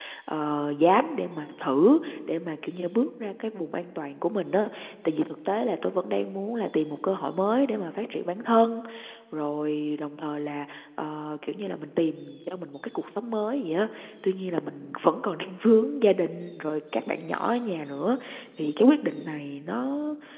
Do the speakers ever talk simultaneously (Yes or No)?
No